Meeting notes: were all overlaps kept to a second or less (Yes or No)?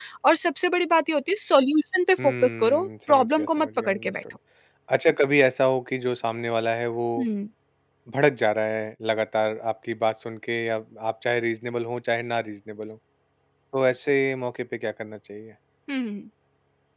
No